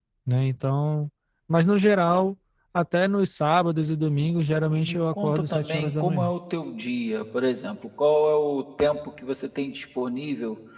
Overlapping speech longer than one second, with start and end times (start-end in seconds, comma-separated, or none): 4.7-6.3